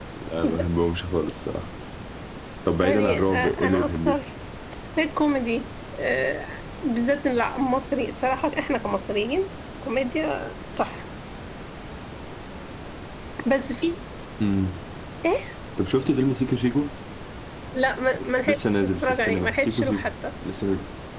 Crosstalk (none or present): present